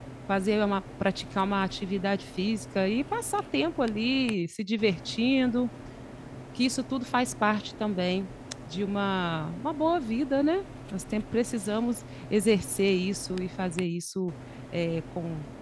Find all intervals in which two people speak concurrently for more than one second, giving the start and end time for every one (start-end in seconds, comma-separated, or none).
none